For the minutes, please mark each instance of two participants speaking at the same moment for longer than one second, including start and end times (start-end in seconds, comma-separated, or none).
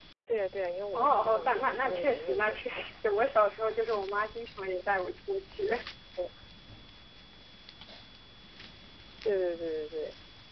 0.9-2.6